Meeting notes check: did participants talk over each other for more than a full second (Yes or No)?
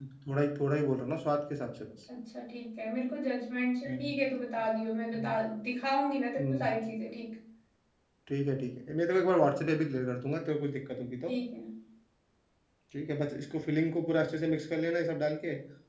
No